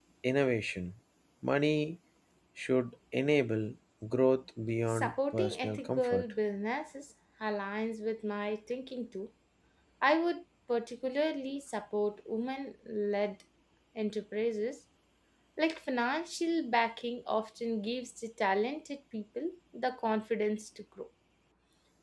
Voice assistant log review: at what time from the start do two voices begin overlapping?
4.9 s

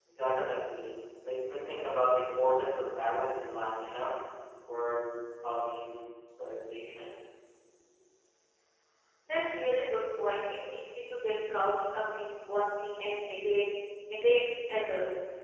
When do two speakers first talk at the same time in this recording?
none

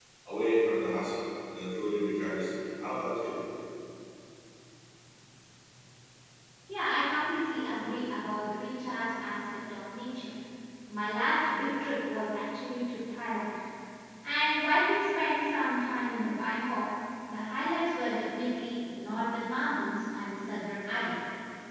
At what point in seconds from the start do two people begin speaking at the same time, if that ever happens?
none

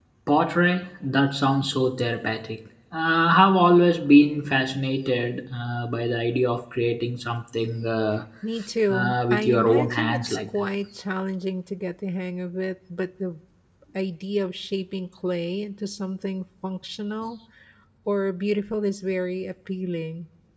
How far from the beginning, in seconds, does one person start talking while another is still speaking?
8.9 s

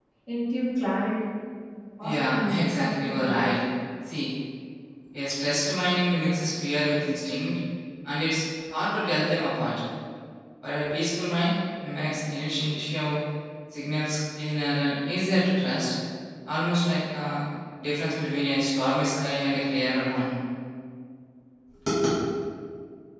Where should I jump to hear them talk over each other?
2.0 s

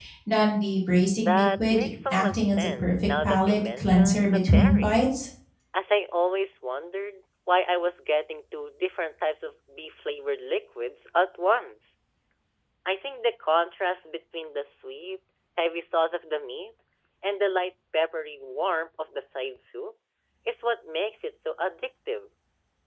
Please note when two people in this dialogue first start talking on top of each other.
1.2 s

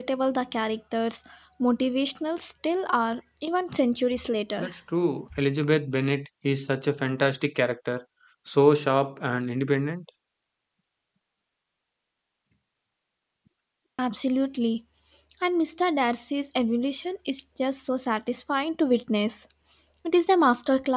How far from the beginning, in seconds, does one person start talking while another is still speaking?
none

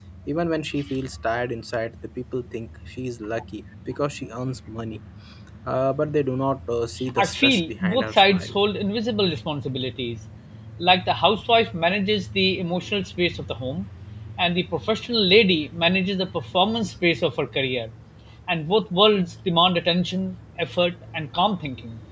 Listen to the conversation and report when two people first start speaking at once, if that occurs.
7.0 s

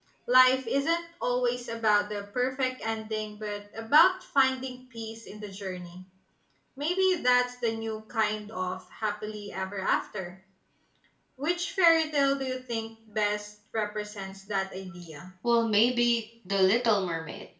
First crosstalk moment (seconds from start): none

